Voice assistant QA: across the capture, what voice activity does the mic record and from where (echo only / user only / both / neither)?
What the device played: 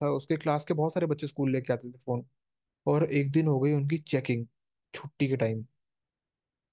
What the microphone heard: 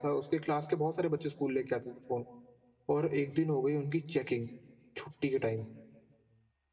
echo only